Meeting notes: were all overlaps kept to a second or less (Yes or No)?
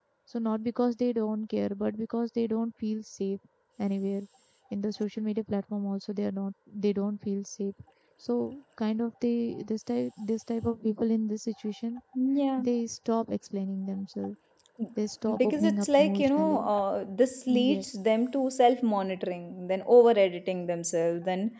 No